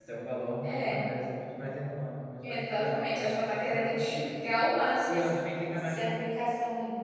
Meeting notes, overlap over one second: present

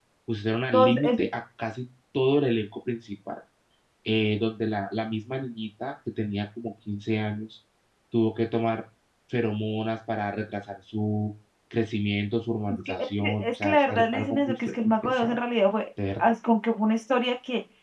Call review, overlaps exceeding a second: present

